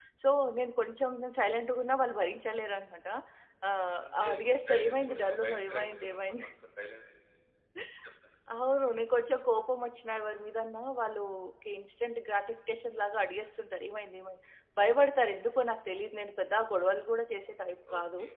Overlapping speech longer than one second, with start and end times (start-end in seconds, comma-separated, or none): 4.0-6.5